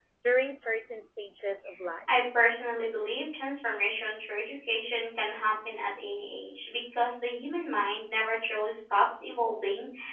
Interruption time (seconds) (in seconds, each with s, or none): none